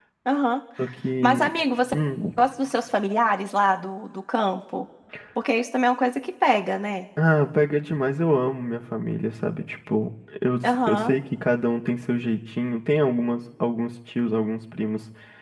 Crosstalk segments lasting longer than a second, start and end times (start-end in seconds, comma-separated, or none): none